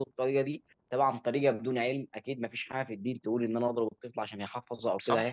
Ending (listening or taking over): taking over